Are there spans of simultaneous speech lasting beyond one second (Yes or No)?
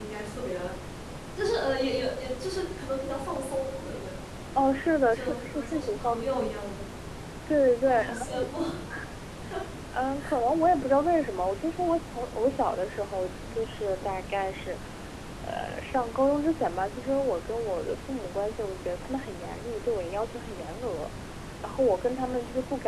Yes